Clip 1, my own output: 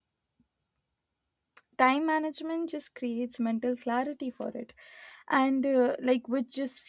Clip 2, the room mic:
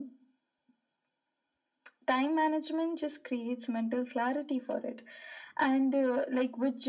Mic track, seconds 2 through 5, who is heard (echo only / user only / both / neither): echo only